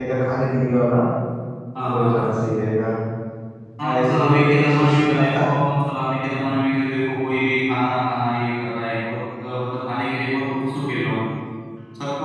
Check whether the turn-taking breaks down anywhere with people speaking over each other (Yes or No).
Yes